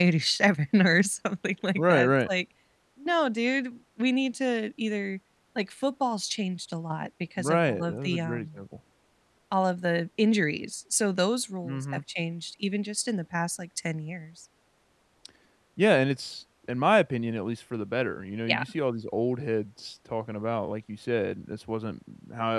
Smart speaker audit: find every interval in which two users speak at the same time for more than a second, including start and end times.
7.4-8.6

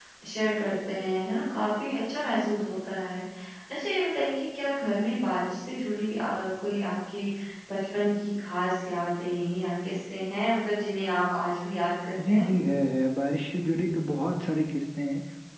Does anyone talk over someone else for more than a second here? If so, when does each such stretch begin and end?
none

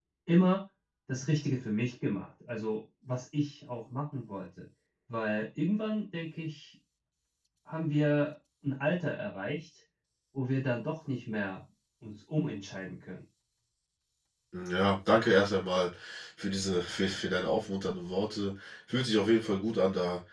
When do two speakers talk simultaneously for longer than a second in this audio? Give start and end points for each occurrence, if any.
none

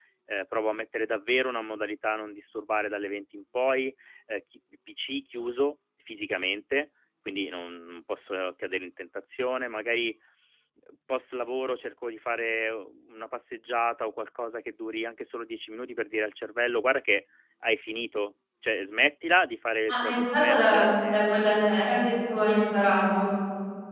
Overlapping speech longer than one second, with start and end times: 19.9-21.2

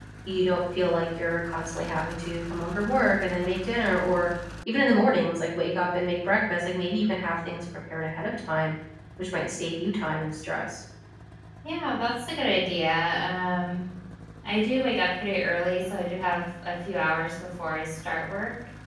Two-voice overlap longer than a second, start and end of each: none

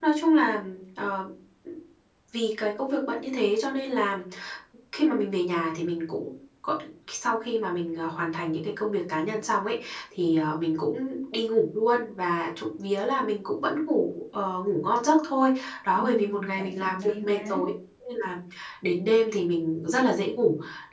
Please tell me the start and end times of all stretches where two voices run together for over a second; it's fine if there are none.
15.9-17.6

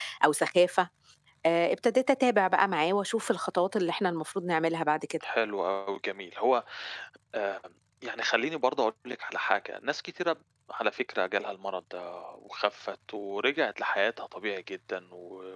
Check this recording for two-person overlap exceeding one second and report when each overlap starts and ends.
none

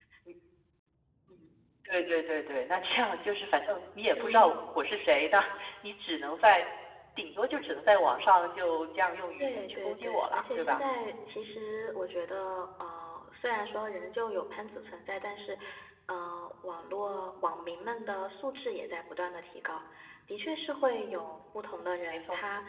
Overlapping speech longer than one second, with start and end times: 9.4-10.8

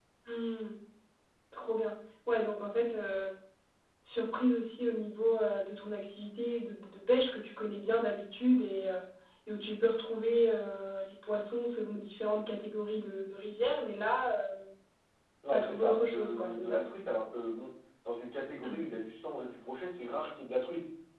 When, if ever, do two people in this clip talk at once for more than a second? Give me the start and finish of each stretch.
15.5-16.8

